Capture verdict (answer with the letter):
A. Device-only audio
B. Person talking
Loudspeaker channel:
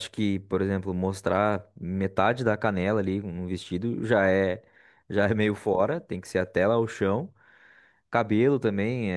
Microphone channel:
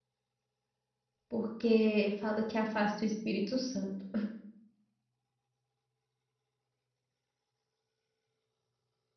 B